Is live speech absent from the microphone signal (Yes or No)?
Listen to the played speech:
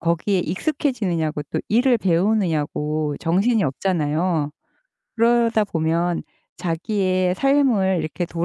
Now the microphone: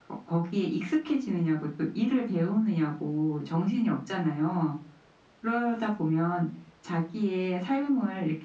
Yes